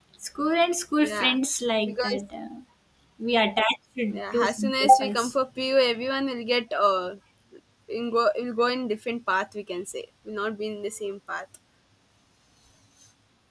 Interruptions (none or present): present